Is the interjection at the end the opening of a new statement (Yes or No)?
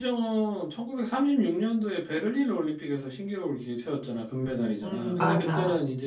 No